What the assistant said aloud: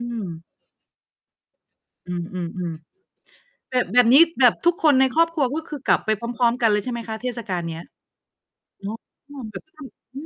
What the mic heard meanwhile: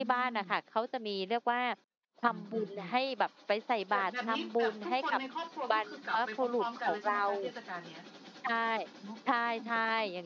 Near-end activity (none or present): present